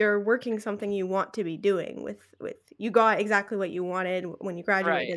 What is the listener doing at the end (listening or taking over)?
listening